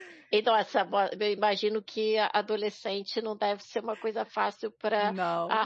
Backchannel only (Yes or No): Yes